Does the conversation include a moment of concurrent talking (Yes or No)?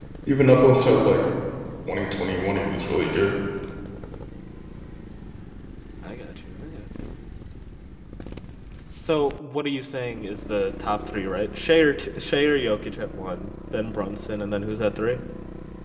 No